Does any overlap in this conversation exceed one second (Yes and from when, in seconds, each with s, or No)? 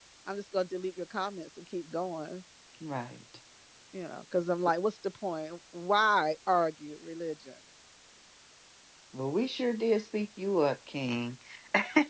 No